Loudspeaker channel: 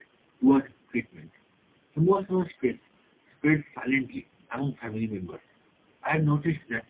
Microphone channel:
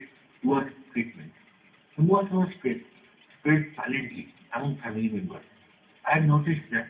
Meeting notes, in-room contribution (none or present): none